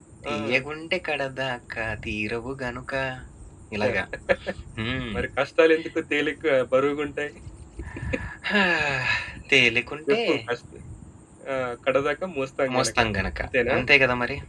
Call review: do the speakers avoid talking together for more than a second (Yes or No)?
Yes